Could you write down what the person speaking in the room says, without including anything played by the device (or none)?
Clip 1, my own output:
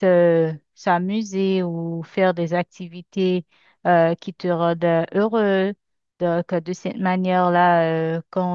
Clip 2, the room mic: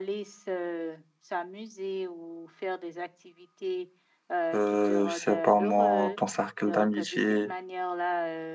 euh, je sais pas moi, ton cercle d'amitié,